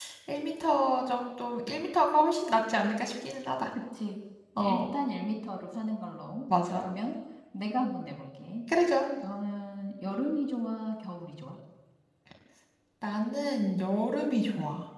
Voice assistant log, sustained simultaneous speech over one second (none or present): none